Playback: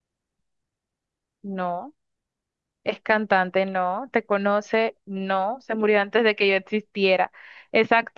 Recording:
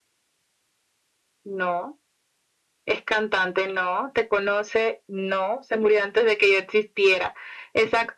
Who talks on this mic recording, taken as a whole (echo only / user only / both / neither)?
echo only